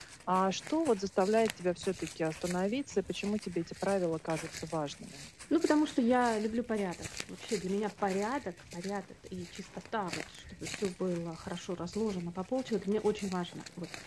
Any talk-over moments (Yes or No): No